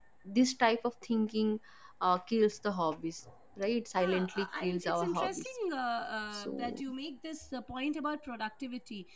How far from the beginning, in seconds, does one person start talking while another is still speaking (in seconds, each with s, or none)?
4.0 s